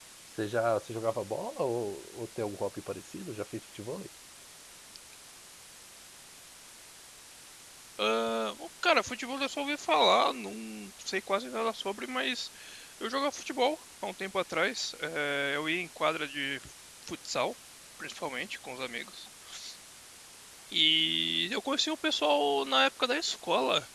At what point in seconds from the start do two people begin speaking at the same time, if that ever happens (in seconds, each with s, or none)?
none